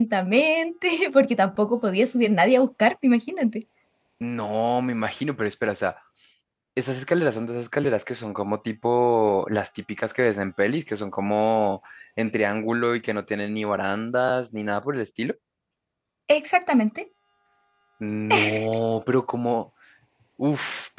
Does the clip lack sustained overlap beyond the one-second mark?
Yes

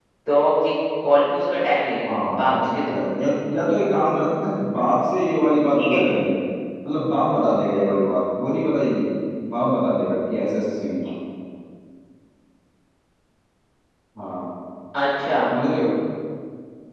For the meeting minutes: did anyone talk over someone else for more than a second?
Yes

